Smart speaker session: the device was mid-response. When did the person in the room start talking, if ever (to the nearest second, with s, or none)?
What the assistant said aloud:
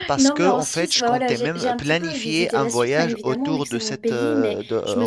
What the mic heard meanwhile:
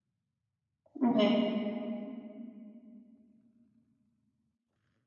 1 s